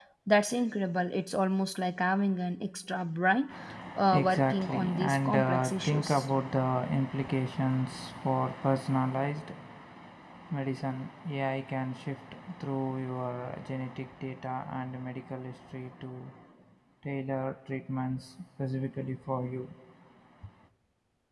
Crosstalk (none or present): present